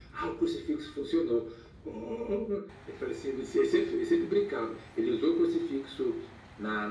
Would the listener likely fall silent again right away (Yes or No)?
Yes